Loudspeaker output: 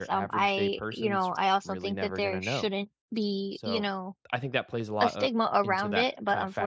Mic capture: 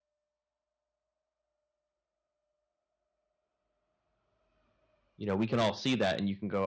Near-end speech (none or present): present